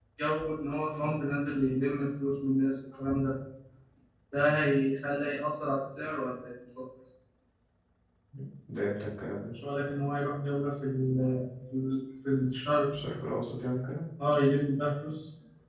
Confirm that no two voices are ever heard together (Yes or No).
Yes